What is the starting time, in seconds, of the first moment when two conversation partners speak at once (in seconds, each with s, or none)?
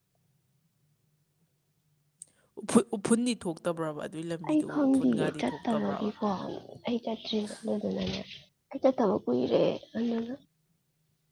4.4 s